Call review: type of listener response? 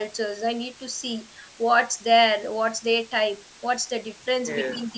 listening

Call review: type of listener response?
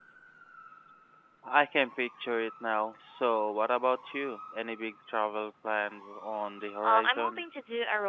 taking over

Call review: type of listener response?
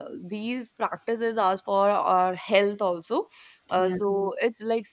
listening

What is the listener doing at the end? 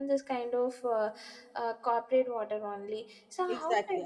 taking over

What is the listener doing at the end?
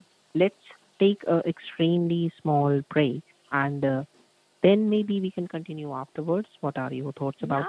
taking over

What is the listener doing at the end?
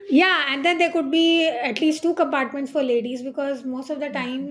listening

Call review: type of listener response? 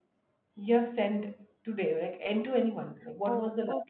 taking over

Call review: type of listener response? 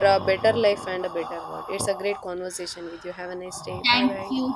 taking over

